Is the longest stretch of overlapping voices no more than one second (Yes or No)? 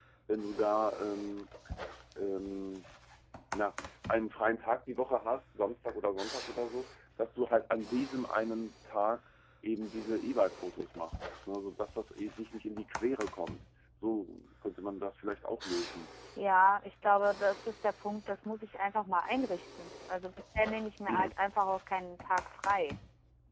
Yes